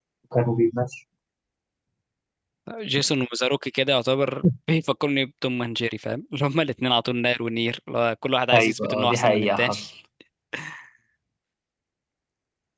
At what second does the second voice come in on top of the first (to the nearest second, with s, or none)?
9 s